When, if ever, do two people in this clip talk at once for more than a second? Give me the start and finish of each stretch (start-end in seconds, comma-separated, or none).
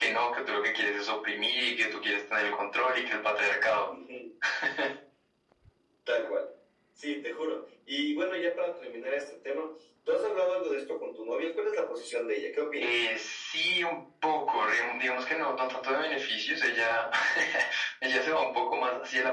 none